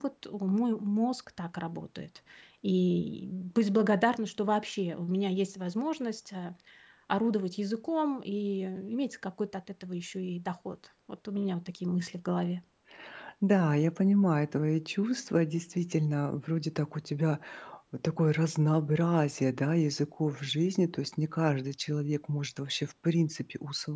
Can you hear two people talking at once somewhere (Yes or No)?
No